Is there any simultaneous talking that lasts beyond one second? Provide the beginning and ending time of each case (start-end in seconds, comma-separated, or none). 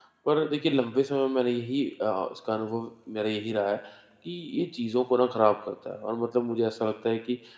none